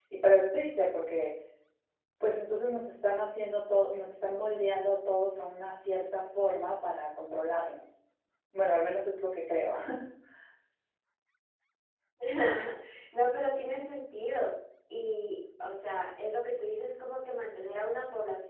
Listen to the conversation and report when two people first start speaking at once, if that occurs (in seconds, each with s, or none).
none